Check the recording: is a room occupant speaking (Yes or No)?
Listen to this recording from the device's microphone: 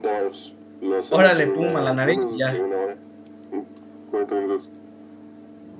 Yes